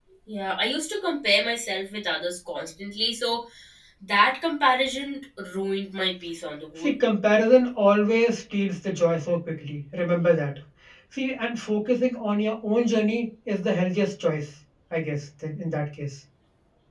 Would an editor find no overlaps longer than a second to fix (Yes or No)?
Yes